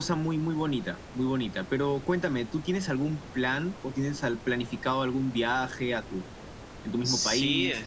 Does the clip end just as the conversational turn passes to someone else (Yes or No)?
Yes